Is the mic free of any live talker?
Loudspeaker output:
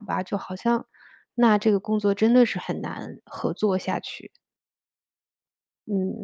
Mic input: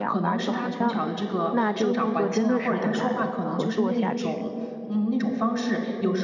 No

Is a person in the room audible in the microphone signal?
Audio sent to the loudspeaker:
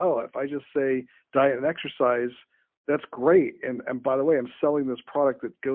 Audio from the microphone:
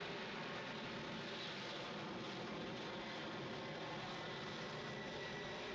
No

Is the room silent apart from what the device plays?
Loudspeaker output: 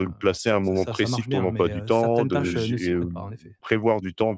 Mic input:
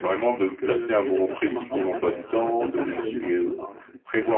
No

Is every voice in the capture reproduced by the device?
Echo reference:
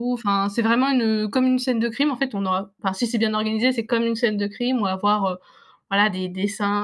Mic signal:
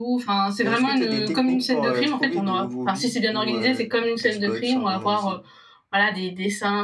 No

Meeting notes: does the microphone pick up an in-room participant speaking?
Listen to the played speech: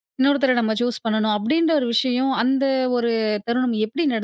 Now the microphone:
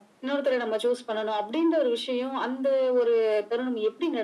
No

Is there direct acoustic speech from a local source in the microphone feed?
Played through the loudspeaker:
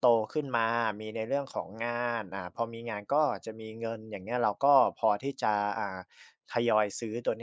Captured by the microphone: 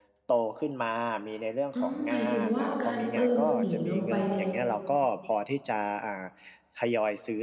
Yes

